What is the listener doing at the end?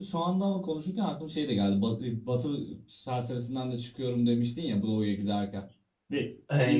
taking over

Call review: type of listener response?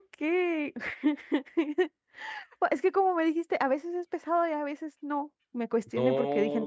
taking over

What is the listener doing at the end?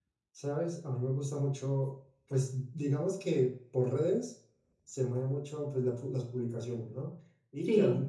listening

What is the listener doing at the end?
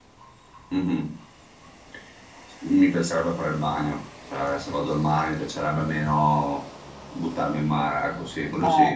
taking over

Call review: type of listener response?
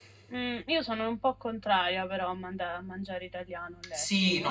taking over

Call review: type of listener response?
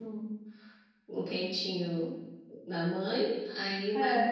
listening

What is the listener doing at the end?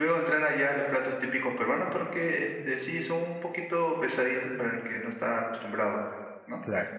listening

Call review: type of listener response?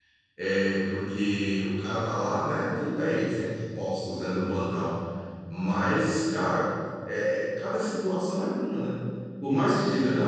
listening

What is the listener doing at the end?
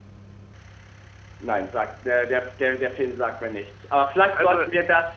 listening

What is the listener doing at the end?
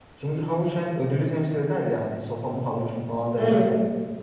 listening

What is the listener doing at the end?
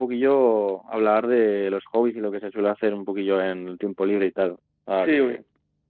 taking over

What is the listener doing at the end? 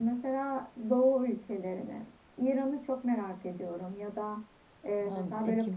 listening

